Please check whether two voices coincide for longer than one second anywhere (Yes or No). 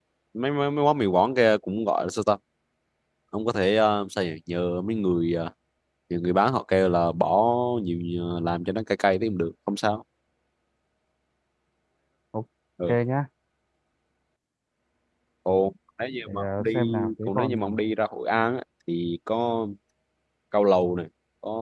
Yes